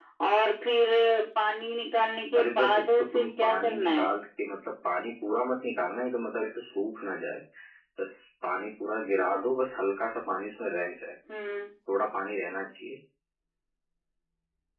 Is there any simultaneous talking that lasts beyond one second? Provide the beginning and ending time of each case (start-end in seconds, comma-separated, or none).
2.4-4.1